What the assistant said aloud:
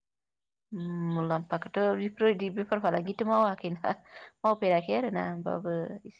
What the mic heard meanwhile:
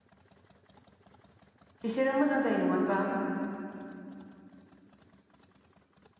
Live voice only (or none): बिसोरो मोजां जायो नङा होनबा